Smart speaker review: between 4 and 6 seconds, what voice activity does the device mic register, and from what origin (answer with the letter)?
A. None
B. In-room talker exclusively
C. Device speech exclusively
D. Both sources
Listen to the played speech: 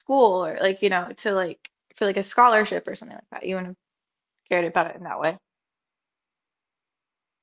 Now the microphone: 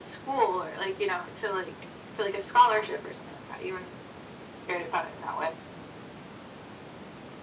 C